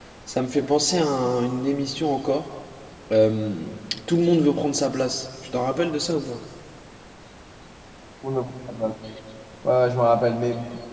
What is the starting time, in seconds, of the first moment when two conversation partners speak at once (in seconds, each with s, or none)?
none